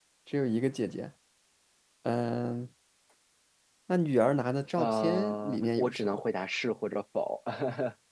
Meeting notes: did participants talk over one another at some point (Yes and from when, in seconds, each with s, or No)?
Yes, from 4.8 s